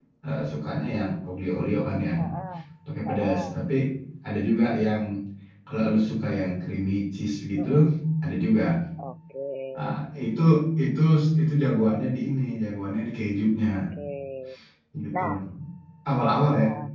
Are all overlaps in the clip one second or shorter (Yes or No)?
Yes